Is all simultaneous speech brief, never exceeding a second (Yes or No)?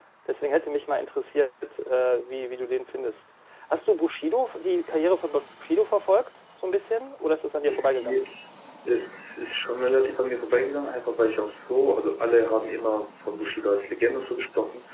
Yes